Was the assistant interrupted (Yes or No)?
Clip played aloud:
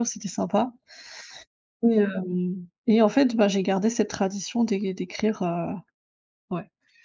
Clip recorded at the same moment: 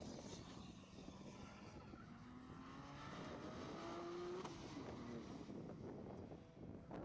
No